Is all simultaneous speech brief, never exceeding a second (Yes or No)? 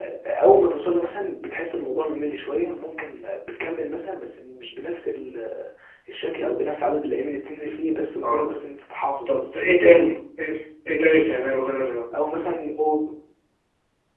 Yes